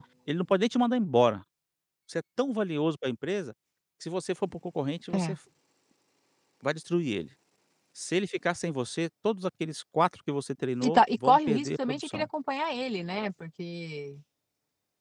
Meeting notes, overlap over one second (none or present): present